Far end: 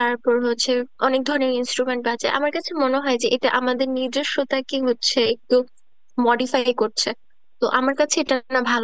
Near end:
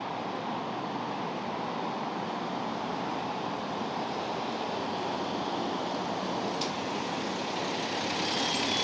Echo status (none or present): none